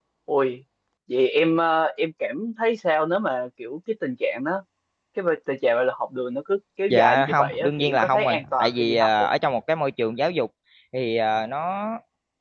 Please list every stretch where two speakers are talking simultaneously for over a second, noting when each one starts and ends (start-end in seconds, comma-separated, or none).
6.9-9.3